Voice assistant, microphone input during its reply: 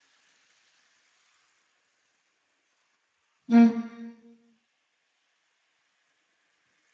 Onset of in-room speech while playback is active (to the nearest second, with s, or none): 4 s